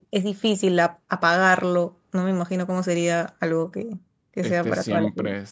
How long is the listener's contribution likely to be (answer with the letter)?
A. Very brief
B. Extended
B